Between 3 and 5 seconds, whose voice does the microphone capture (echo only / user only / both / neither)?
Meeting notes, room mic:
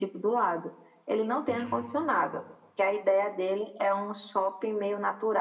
echo only